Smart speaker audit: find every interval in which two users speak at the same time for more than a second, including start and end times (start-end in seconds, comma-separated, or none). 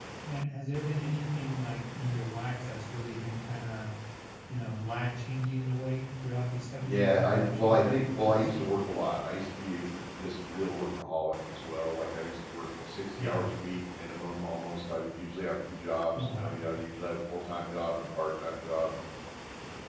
6.8-8.5